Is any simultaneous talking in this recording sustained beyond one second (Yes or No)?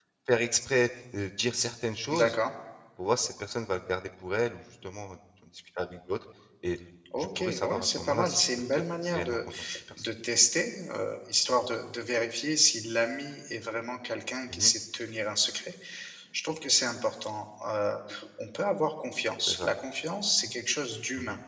Yes